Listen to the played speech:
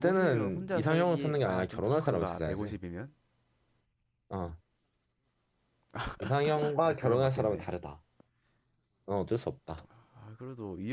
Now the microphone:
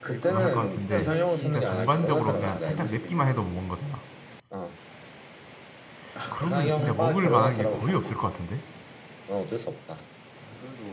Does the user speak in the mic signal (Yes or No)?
Yes